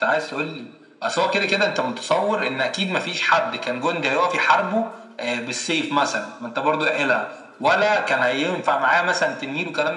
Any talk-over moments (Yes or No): No